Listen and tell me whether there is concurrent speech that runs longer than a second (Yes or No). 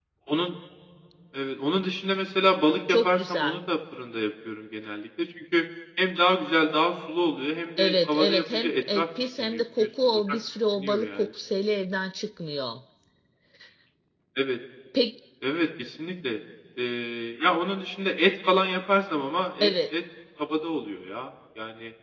Yes